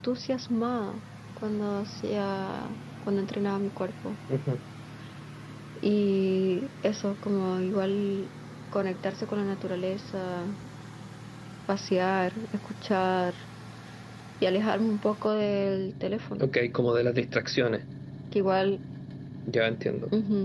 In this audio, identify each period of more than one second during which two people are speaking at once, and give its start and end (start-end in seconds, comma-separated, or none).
none